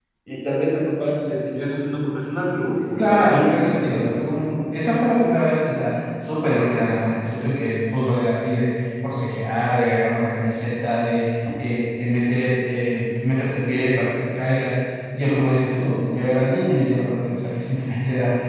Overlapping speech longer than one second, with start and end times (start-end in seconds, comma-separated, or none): 3.0-4.4